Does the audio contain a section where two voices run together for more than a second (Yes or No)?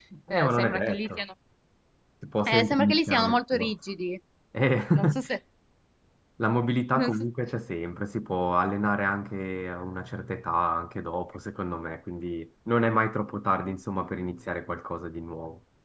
Yes